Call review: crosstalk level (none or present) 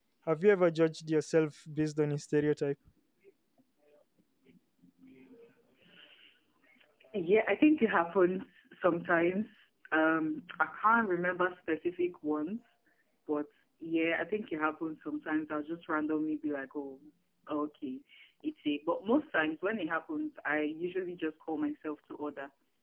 none